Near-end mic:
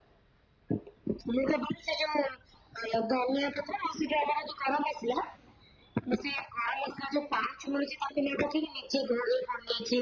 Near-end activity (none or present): none